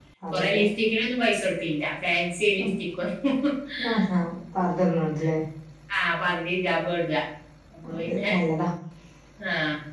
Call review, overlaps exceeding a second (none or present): none